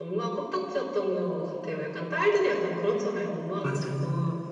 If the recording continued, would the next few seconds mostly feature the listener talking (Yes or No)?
No